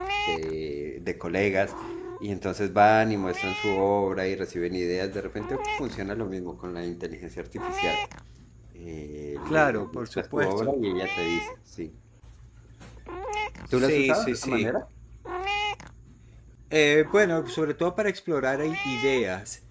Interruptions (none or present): present